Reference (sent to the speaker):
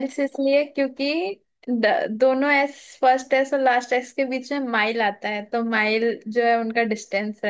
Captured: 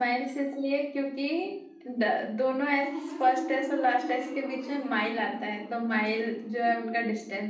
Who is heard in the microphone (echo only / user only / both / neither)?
both